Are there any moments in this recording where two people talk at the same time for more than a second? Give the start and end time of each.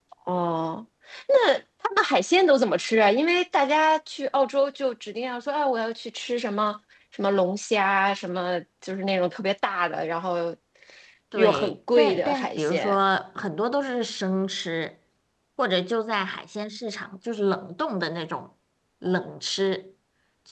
11.3-13.0

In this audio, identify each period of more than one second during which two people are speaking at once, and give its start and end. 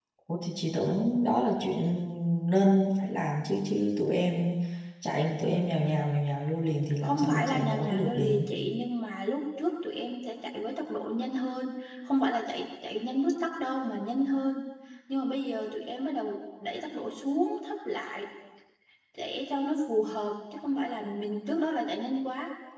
7.0-8.4

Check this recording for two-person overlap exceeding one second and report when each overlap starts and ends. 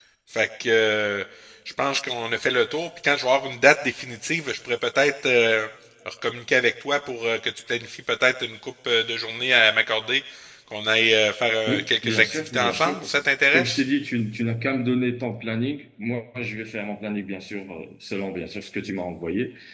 11.7-13.0

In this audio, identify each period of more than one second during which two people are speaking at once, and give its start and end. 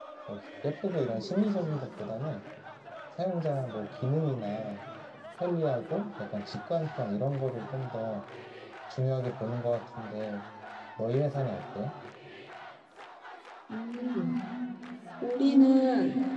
none

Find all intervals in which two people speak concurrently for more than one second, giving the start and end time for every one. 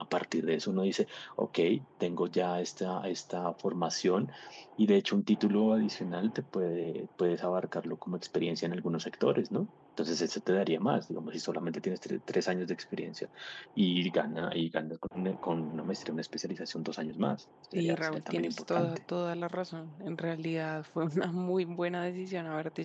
17.7-19.0

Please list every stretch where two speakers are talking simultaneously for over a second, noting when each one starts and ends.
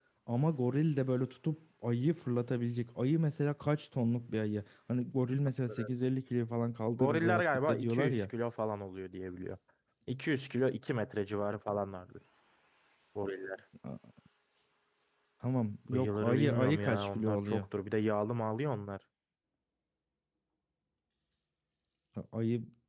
7.0-8.3, 15.9-17.6

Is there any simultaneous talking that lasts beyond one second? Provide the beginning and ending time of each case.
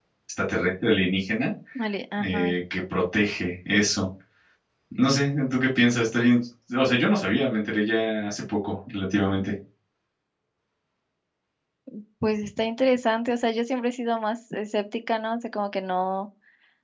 none

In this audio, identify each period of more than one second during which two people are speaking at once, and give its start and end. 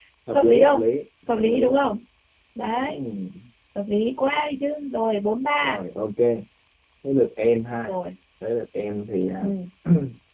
none

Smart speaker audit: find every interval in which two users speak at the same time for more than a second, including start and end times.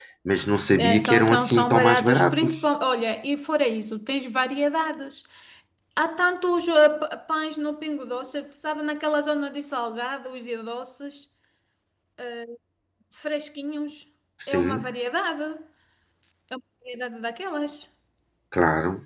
0.8-2.5

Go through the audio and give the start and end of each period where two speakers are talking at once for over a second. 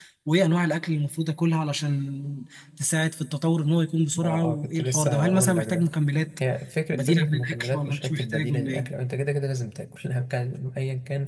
4.2-5.9, 6.9-8.9

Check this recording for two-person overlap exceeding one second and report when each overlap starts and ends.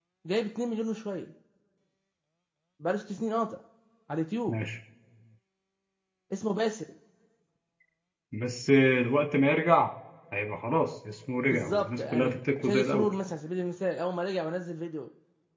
11.4-13.1

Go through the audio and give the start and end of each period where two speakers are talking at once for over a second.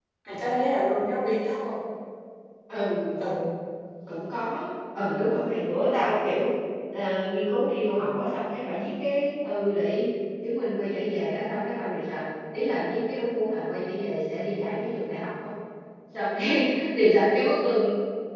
none

